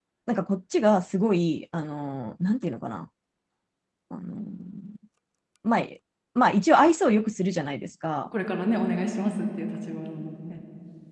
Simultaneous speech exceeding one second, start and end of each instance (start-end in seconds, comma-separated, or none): none